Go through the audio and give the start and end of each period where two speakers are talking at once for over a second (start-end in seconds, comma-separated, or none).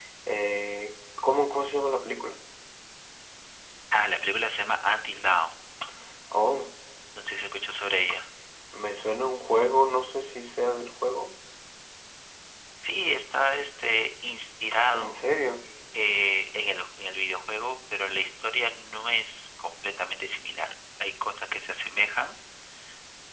none